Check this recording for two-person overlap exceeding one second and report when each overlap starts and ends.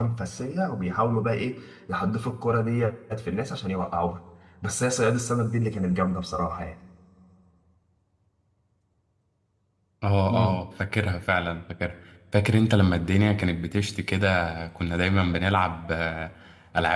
none

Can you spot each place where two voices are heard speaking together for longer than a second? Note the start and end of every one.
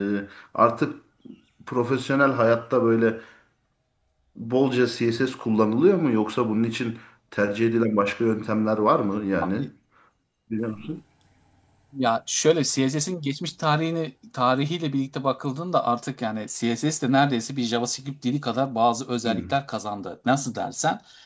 none

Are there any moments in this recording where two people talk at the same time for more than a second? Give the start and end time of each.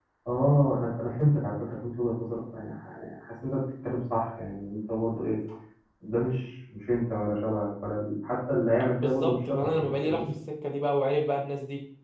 9.0-10.2

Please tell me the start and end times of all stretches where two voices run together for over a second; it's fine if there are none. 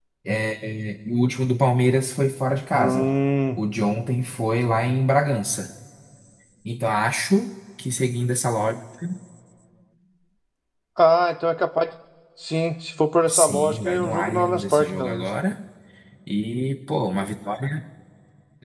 13.3-15.3

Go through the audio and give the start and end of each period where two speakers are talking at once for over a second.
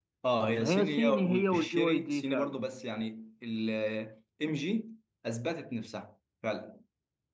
0.6-2.6

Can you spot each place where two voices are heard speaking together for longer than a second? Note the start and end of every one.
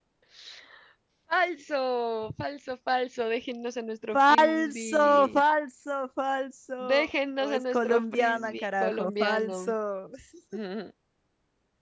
4.1-5.4, 7.5-9.7

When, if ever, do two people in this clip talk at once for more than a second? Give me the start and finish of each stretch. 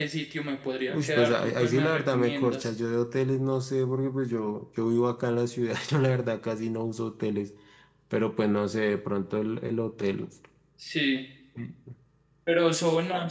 0.9-2.7

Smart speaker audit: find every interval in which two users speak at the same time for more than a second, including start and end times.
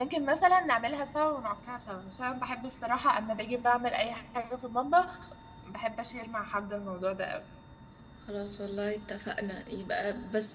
none

